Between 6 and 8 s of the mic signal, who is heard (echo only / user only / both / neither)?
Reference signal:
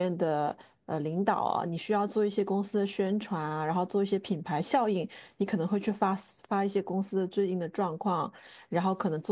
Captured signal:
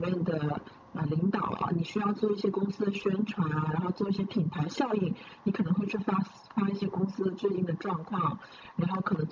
echo only